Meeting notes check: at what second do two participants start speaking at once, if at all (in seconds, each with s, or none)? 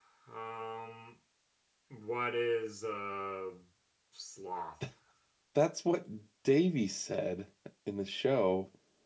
none